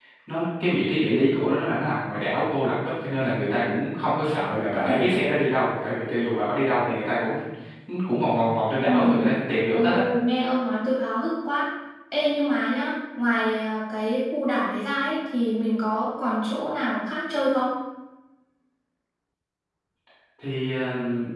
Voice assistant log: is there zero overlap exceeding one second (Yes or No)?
Yes